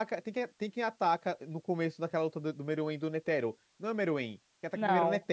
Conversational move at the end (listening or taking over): listening